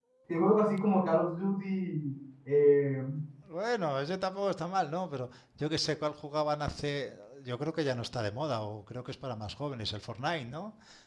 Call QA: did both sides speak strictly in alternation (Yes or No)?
Yes